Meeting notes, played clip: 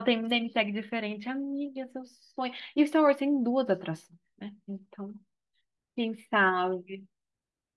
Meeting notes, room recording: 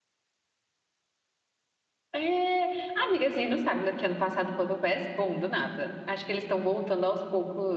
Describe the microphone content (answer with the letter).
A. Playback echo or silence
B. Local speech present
B